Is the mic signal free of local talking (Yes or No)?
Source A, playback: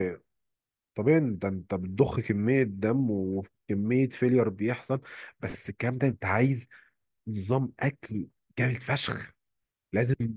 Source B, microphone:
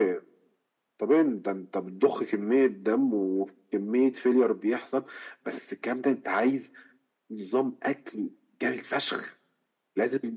Yes